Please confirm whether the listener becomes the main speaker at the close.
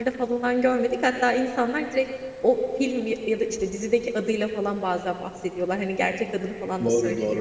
Yes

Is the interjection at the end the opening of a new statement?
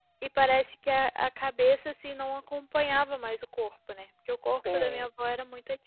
No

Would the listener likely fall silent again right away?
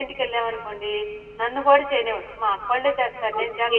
No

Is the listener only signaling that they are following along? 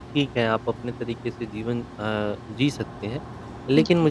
Yes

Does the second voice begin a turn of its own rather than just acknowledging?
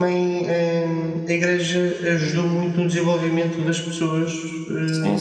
Yes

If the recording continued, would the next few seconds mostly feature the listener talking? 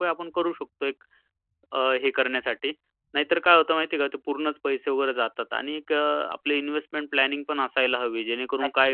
No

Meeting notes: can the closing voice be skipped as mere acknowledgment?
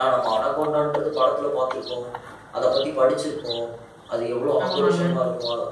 Yes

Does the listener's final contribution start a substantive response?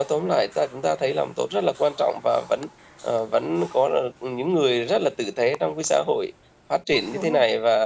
No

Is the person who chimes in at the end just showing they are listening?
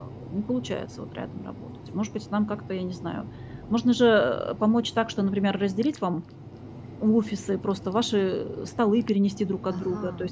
Yes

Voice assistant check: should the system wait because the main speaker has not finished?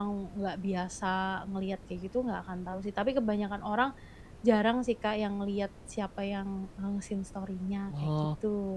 No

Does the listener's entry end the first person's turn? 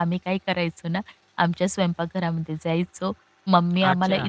No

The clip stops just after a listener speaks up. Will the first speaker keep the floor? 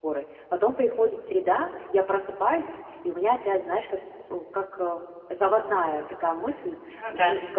Yes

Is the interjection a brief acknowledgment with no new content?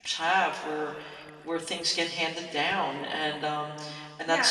No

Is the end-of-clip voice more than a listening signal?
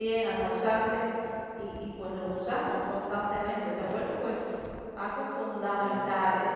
No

